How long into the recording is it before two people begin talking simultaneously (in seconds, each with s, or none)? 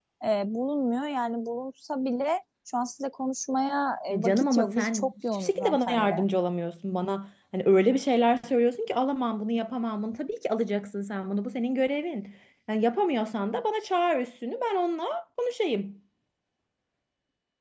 4.1 s